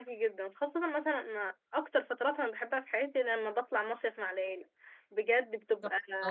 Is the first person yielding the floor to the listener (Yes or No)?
No